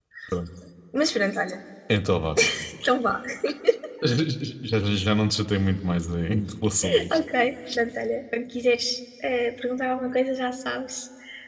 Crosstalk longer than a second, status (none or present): none